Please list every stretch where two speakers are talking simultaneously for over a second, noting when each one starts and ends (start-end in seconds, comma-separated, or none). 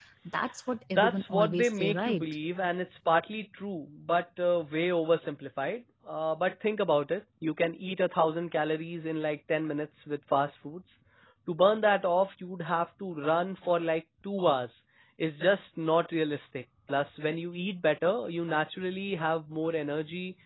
0.9-2.2